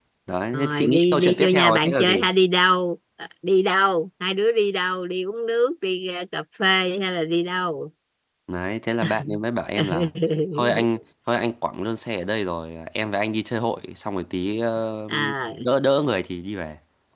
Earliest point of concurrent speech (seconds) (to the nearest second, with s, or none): 1 s